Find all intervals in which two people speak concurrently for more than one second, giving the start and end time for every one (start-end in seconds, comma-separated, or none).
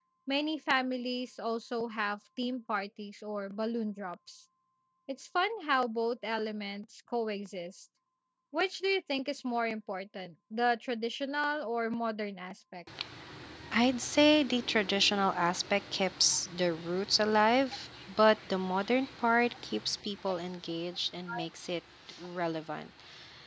none